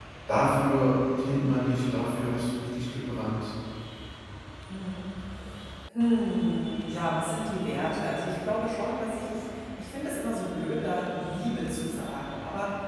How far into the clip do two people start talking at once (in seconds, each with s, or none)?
none